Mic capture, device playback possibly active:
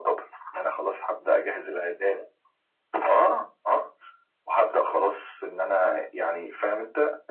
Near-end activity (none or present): none